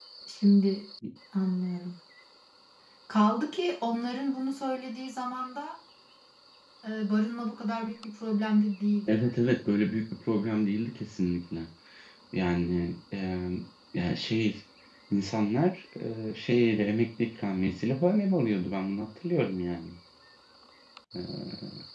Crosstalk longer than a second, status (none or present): none